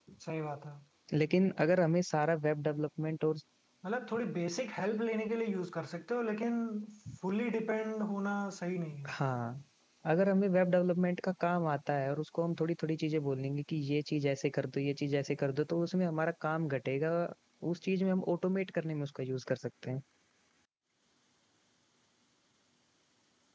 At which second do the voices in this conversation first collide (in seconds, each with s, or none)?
none